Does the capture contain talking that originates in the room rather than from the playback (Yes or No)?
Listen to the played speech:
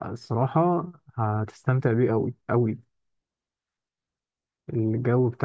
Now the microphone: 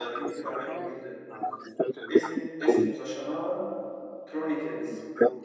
Yes